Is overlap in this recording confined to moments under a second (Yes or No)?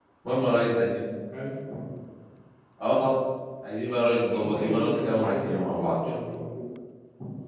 No